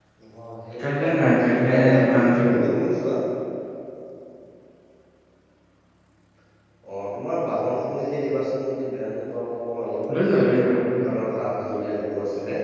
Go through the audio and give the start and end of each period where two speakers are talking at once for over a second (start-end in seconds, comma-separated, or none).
0.8-2.6